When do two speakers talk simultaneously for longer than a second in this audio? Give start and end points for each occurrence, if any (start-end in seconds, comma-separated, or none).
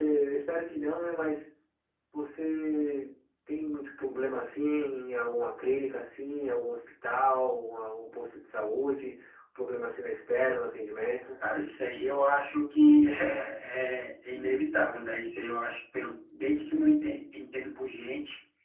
none